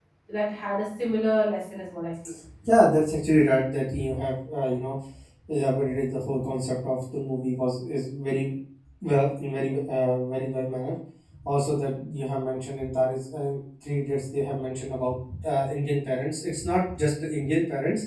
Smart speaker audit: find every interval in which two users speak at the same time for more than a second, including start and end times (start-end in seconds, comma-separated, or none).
none